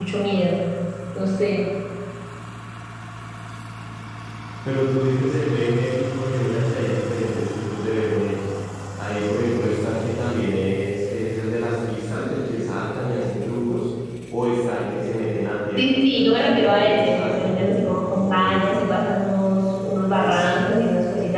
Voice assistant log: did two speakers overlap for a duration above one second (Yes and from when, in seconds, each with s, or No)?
Yes, from 15.8 s